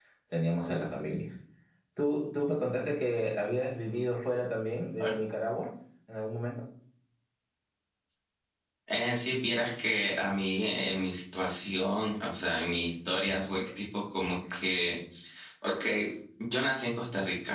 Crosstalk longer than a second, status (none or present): none